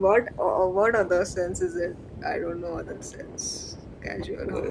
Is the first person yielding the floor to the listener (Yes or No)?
Yes